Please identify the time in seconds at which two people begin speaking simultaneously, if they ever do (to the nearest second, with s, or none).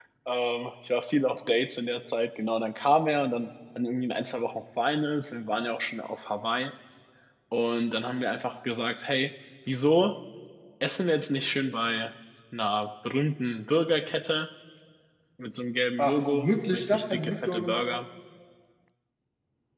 16 s